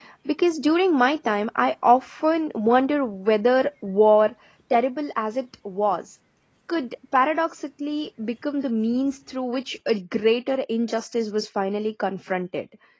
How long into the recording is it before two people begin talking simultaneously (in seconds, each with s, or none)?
none